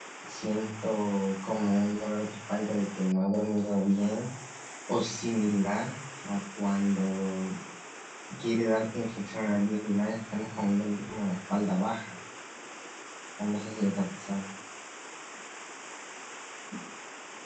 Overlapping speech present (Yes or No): No